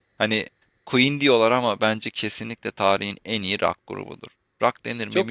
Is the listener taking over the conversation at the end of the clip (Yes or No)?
Yes